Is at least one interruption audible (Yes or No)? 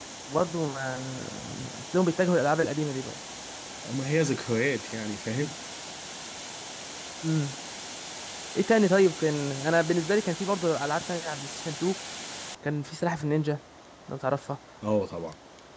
No